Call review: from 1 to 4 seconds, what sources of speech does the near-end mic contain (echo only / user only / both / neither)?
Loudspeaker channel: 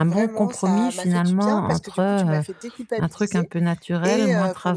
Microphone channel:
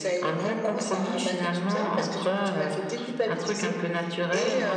echo only